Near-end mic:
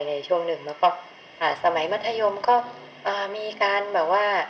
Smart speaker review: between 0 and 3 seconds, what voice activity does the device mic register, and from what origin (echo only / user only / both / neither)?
echo only